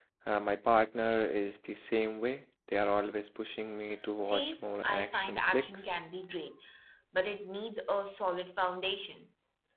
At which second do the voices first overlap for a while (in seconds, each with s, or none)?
4.2 s